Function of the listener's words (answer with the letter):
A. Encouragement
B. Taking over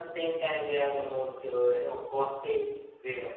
B